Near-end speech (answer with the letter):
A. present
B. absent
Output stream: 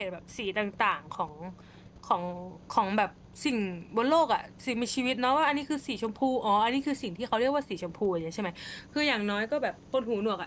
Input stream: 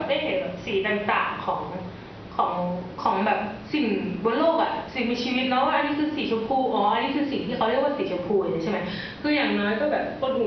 B